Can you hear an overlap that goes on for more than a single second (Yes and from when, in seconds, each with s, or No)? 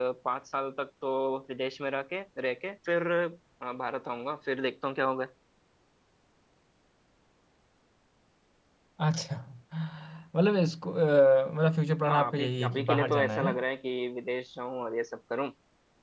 Yes, from 12.1 s